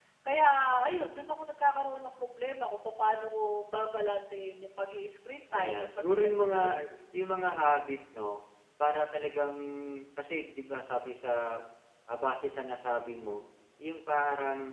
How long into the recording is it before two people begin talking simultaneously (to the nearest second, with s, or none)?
6 s